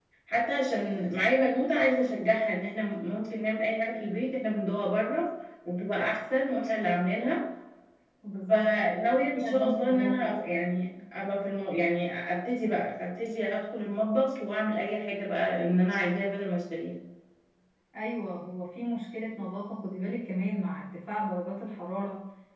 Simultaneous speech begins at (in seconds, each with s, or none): 8.5 s